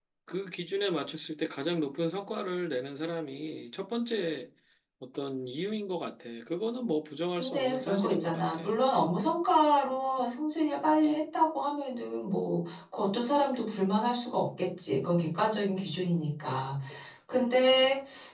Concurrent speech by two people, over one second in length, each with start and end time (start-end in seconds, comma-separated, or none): 7.4-8.6